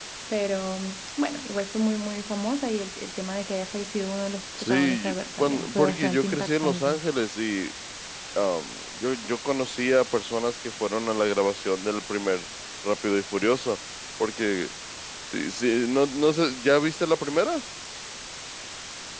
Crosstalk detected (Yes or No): Yes